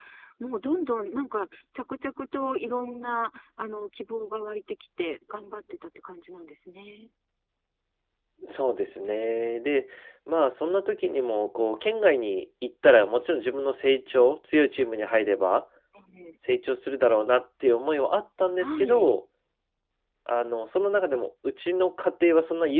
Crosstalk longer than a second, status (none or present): none